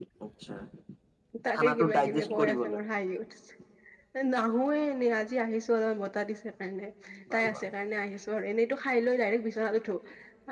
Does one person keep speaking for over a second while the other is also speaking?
Yes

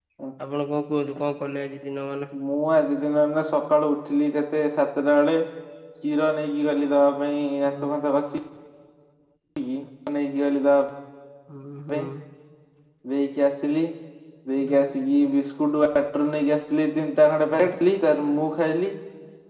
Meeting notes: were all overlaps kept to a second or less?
Yes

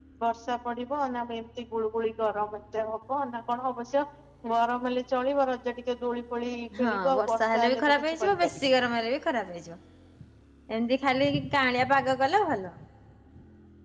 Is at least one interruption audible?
Yes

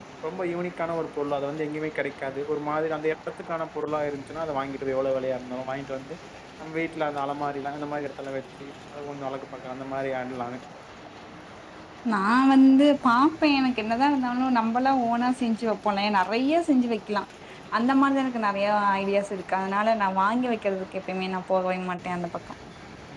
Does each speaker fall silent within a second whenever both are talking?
Yes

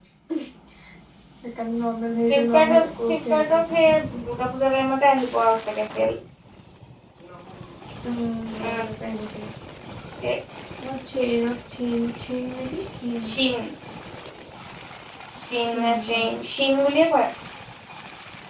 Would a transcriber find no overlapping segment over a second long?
No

